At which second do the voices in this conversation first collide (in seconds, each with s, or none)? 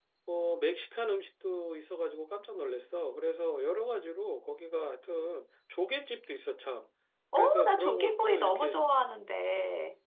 7.3 s